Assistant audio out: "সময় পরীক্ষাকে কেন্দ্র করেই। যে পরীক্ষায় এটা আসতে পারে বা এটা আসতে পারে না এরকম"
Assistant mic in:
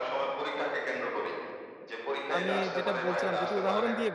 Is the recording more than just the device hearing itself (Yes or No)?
Yes